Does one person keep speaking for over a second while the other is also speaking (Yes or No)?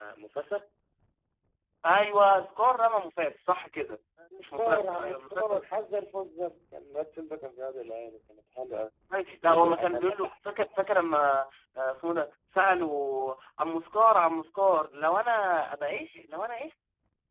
Yes